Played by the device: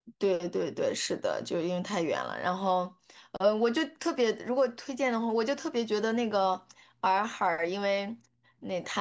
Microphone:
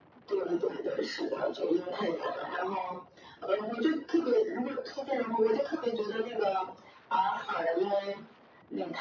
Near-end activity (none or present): none